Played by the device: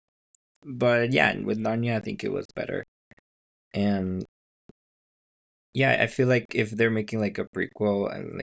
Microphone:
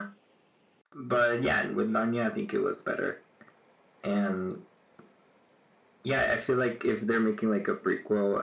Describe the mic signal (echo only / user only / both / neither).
echo only